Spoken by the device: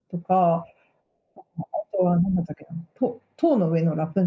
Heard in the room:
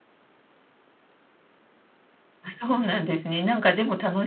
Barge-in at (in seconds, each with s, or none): 2.4 s